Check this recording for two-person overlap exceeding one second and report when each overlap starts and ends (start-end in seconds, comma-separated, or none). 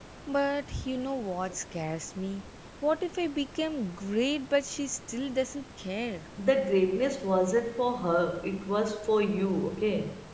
none